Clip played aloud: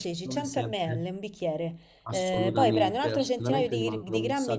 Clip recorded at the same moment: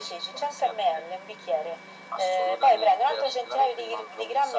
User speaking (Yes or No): No